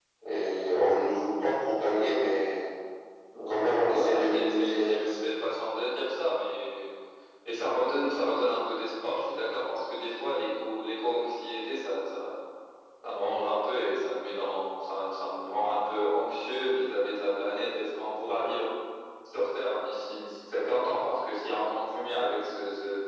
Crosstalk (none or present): present